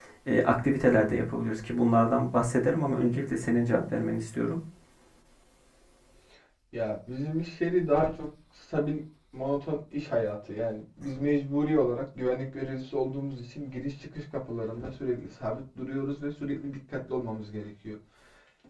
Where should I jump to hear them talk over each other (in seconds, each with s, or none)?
none